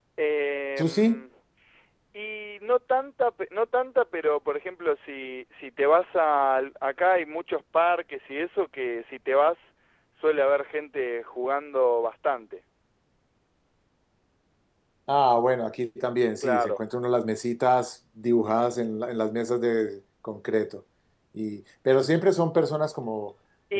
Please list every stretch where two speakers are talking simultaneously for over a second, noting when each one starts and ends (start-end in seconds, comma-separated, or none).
none